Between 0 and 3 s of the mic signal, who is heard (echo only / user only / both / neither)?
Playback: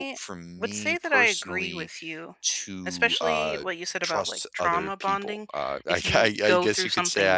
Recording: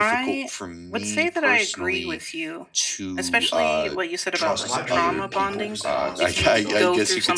echo only